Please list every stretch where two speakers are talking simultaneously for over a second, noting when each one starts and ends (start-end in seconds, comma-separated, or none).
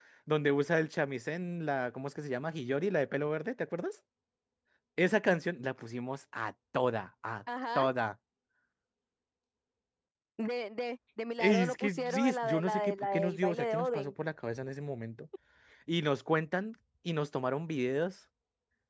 11.4-14.1